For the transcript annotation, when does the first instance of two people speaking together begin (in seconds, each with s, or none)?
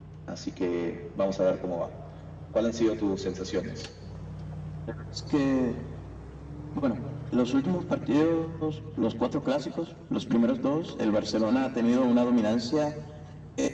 none